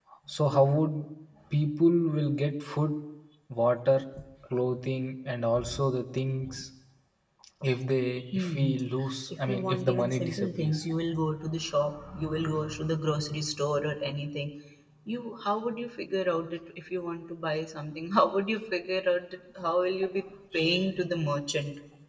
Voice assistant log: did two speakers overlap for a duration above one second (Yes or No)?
Yes